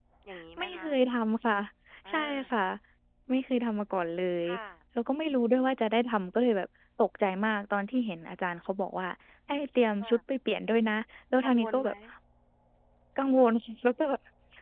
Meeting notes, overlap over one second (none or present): none